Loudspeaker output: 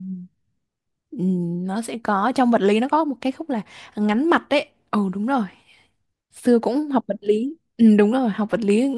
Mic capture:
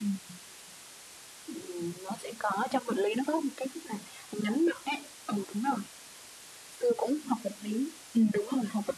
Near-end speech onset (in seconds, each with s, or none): none